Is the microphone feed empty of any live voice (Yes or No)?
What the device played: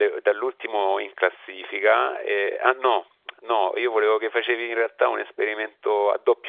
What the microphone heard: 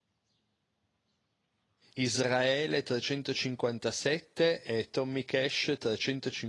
No